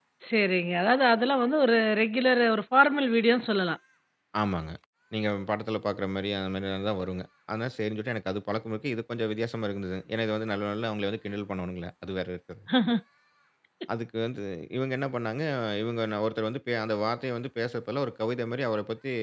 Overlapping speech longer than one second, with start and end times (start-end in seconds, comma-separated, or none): none